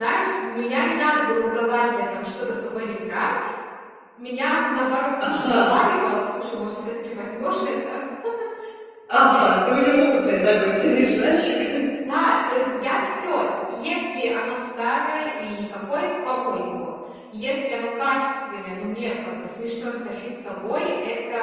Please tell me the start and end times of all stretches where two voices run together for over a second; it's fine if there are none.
none

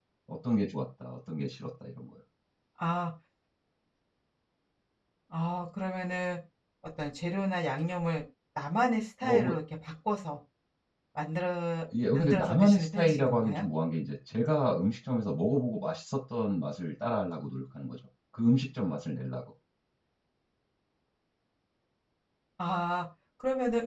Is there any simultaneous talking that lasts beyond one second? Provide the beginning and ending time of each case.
12.1-13.6

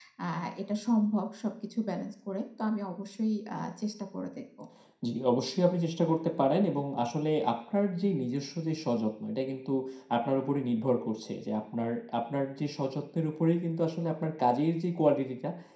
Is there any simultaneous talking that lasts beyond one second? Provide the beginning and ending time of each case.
none

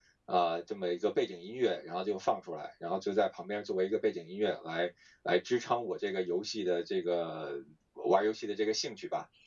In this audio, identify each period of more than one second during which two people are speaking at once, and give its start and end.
none

